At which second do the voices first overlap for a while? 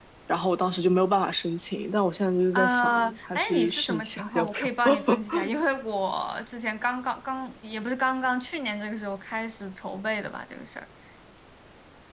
2.5 s

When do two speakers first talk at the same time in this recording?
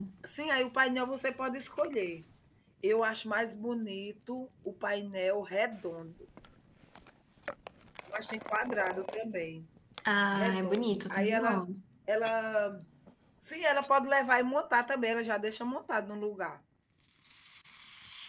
10.3 s

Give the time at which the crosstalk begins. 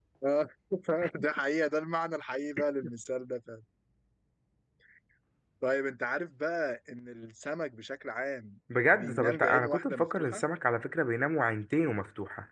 8.7 s

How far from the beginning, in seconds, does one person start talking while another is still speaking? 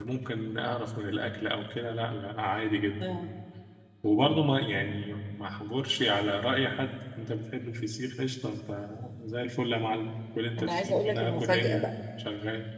10.6 s

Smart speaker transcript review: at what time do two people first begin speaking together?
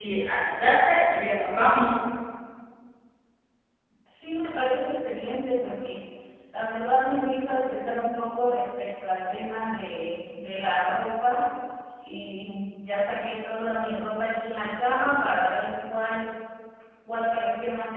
none

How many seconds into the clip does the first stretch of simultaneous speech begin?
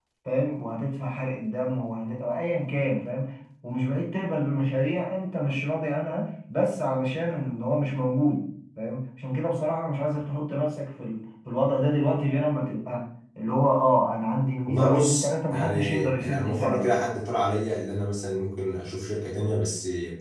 14.7 s

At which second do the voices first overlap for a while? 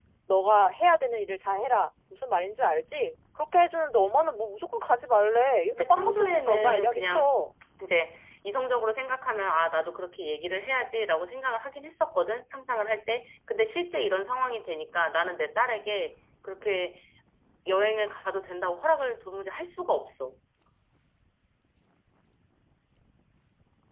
5.7 s

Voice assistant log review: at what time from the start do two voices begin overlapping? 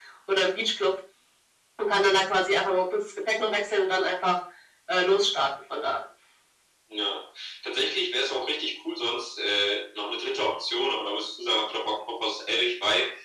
none

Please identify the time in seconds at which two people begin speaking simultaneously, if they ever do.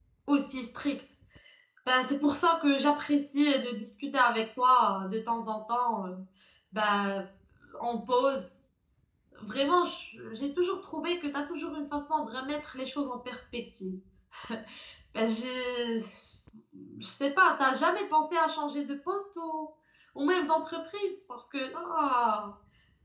none

